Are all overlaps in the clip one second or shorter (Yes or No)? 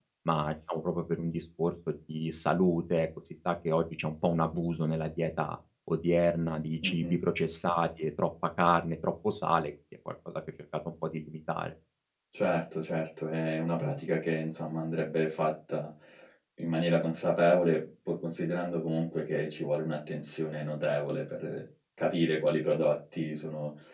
Yes